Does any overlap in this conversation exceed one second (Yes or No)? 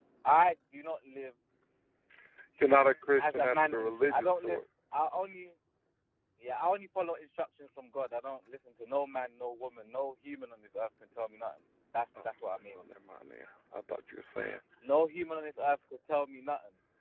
Yes